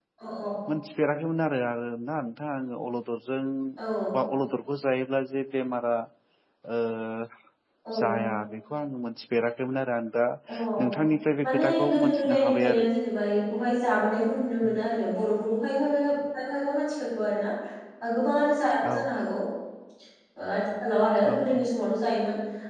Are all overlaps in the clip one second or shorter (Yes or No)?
No